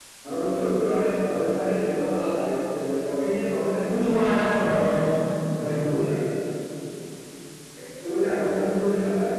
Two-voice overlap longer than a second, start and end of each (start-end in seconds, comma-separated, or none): 3.8-5.1